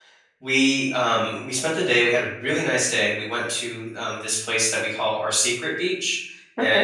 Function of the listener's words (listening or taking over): listening